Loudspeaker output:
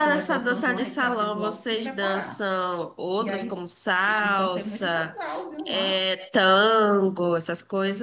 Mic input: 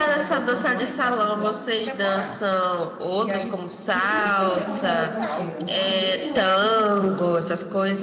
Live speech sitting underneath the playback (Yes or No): Yes